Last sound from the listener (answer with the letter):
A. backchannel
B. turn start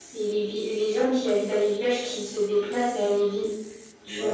B